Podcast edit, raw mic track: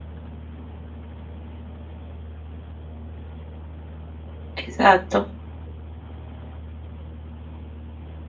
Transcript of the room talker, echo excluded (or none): Exacto.